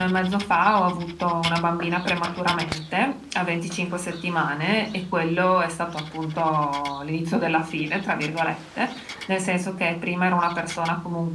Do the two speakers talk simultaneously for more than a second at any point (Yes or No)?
No